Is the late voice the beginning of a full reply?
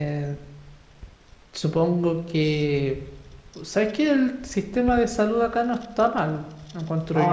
Yes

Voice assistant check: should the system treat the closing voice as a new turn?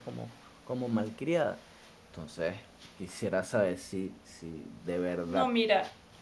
Yes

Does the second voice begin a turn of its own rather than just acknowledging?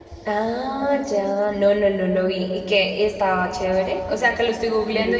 No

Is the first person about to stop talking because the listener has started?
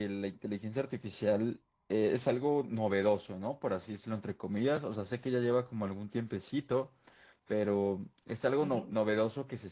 No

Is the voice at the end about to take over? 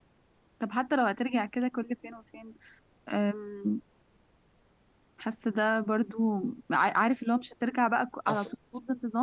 No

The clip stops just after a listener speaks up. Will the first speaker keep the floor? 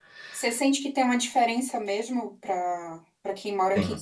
Yes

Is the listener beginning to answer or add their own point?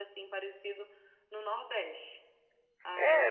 Yes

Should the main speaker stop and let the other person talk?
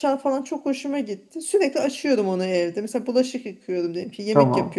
No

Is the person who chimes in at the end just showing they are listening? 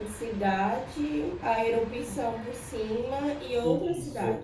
No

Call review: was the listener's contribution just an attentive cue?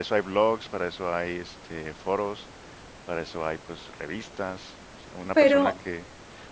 Yes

